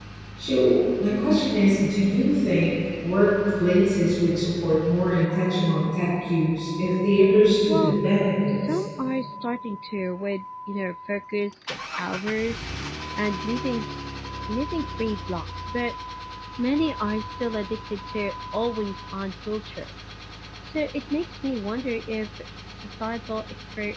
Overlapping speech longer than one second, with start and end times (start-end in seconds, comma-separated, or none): none